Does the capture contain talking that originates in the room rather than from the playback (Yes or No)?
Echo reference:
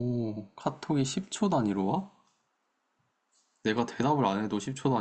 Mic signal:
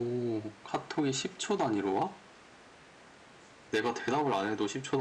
No